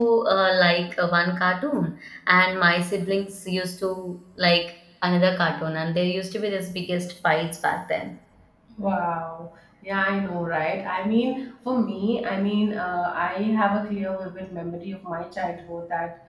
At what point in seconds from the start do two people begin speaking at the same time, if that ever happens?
none

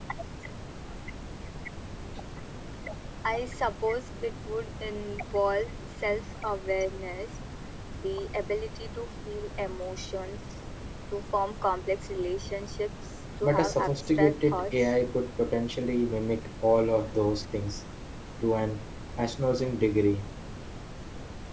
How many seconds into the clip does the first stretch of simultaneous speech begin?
13.4 s

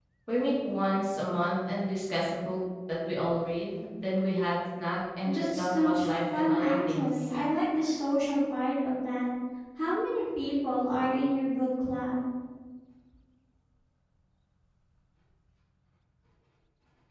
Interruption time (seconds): 5.2 s

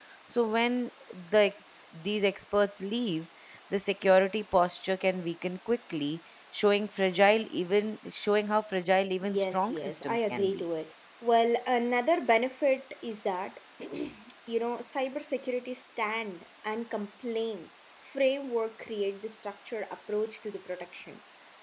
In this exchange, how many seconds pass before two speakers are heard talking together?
9.2 s

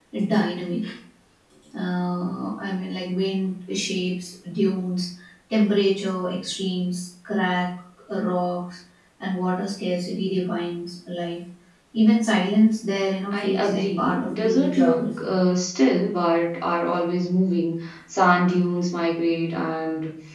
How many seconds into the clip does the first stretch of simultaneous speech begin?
13.3 s

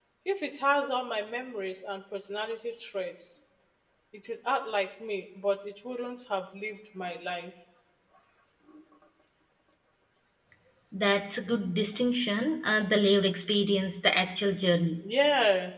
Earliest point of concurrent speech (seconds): none

